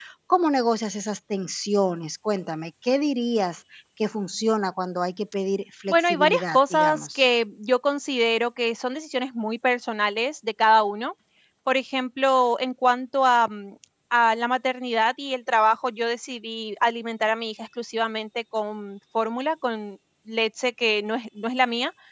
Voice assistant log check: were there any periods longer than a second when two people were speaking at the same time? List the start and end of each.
5.9-7.2

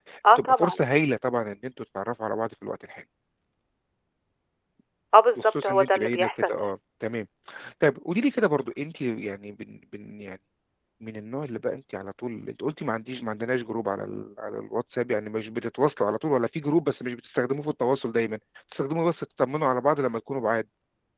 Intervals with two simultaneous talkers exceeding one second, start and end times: 5.4-6.7

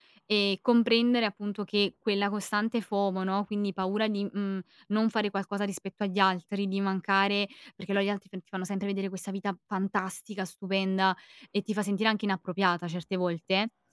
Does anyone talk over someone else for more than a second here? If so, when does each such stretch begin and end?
none

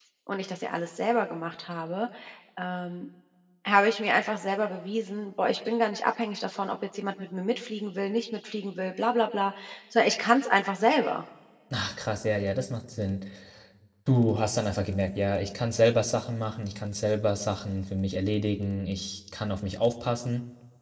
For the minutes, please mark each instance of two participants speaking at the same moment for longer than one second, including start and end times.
none

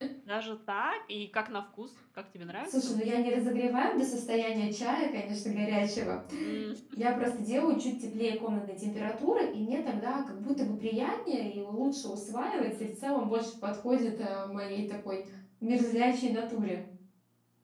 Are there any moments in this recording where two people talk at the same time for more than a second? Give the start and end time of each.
none

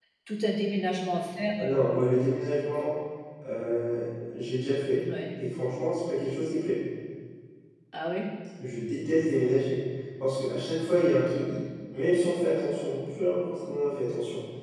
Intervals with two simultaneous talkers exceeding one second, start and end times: none

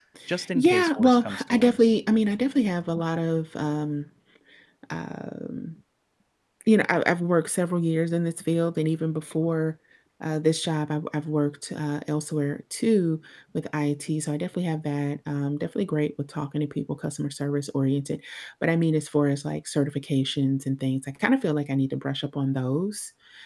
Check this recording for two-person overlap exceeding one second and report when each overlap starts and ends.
0.6-2.0

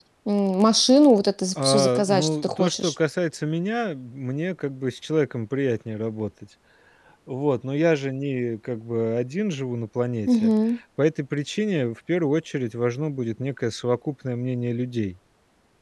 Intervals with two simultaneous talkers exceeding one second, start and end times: 1.6-2.9

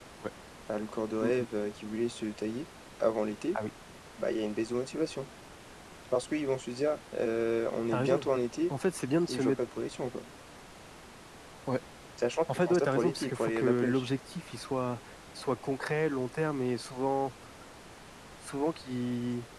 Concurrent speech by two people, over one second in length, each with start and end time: 12.7-14.0

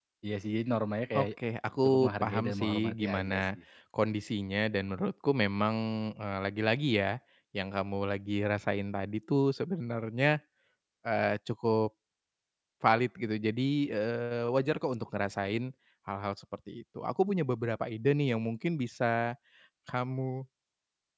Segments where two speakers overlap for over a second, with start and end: 1.8-3.4

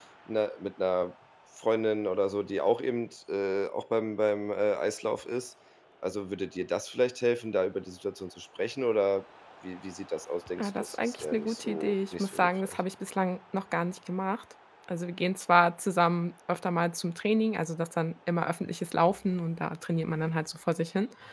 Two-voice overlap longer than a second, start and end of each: 10.6-12.8

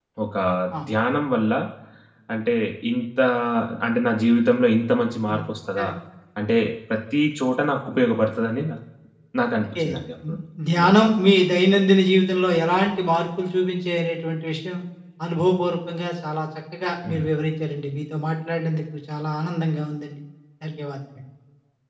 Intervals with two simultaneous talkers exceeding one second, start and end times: none

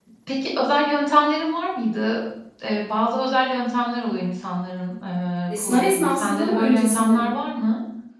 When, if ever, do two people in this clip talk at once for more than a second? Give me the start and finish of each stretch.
5.5-7.3

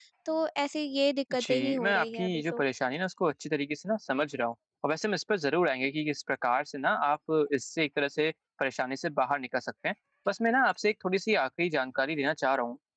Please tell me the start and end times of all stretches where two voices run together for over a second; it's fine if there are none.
1.3-2.6

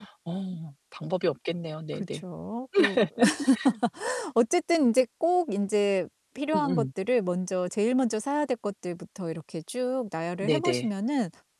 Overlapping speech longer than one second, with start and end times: none

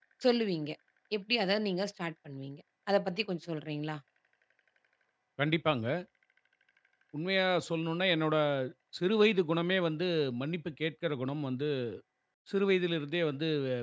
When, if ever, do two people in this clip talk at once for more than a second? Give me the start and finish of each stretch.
none

